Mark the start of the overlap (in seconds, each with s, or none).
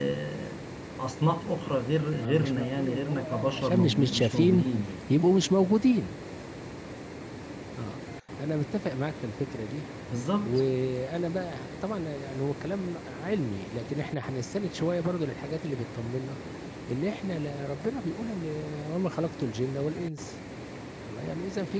2.2 s